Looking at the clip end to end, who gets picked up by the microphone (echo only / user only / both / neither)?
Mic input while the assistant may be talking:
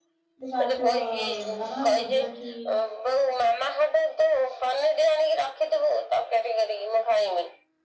both